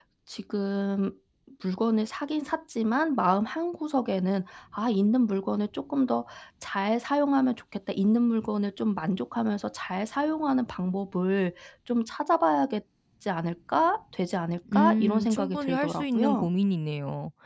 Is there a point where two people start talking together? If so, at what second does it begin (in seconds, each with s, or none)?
14.7 s